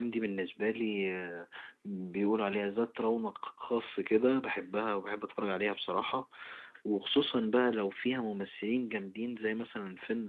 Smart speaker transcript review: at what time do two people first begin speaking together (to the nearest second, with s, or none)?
none